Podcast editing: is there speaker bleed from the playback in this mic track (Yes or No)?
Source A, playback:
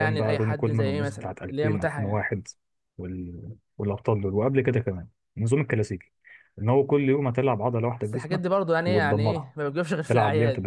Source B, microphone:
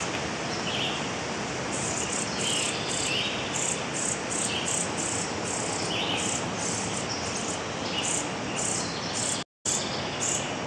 No